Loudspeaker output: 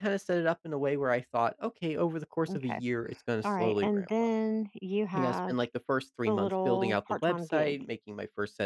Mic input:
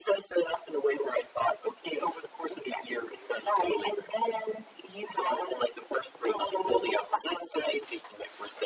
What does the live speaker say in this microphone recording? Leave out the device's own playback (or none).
none